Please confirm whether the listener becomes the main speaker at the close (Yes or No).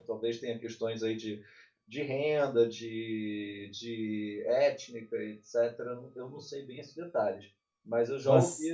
No